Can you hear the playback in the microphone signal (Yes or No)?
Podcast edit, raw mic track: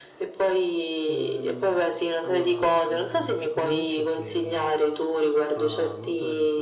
Yes